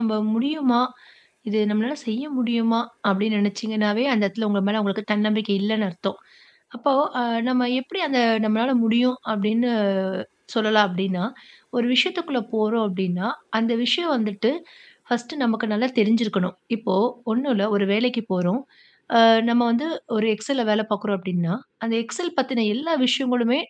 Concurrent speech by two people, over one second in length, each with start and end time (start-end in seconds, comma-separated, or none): none